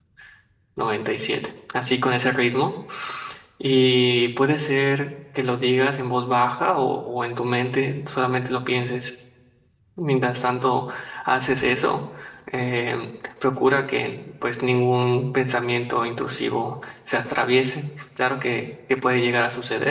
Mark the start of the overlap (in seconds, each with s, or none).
none